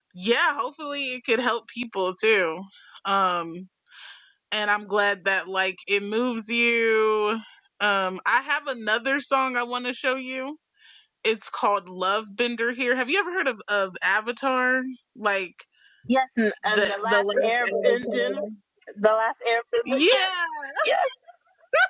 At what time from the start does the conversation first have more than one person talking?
16.7 s

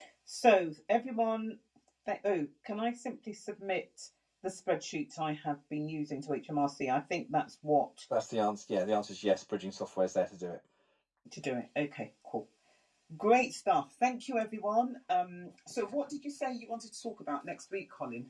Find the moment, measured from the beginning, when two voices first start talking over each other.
none

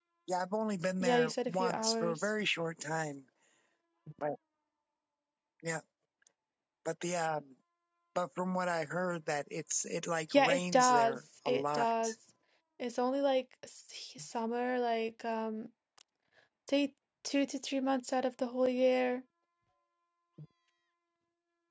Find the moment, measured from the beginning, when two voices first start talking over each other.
1.0 s

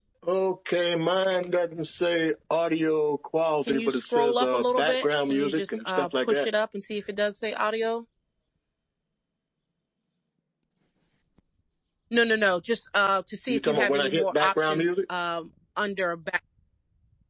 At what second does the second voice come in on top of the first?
3.7 s

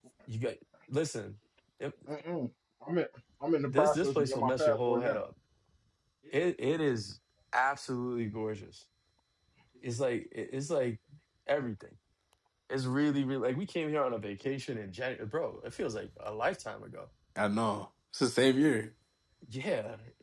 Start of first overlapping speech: 3.7 s

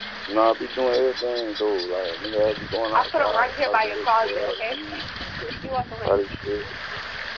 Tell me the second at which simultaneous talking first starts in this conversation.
2.9 s

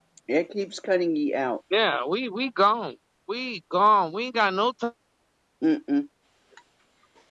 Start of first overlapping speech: none

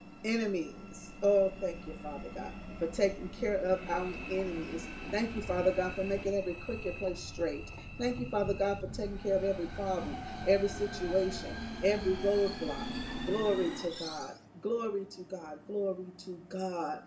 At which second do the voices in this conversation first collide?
none

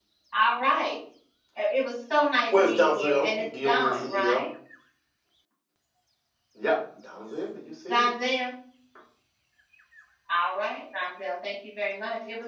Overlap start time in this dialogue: 2.5 s

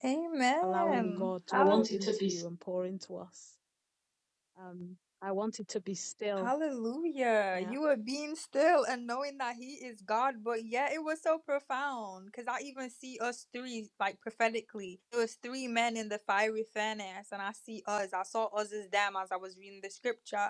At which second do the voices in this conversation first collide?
0.6 s

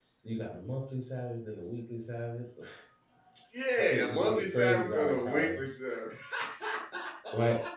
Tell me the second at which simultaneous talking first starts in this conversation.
3.8 s

